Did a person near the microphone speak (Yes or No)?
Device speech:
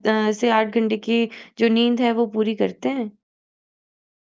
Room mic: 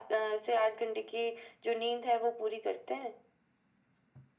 No